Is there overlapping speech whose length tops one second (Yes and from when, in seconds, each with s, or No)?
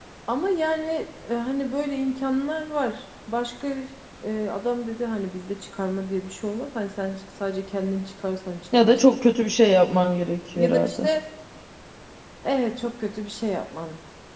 No